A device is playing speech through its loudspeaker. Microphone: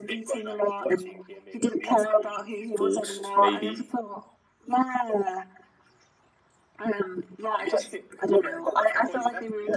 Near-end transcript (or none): forced, maybe.